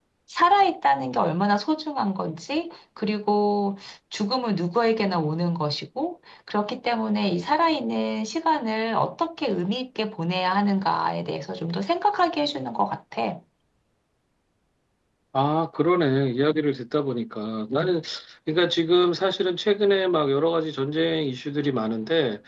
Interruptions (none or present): none